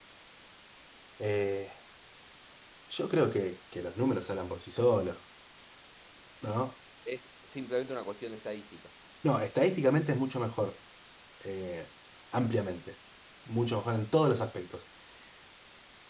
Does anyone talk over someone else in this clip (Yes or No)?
No